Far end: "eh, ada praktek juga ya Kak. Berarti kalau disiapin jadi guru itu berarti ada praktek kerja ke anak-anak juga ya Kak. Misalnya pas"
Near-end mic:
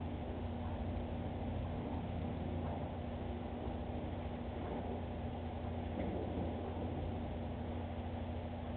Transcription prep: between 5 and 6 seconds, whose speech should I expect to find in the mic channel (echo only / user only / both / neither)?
neither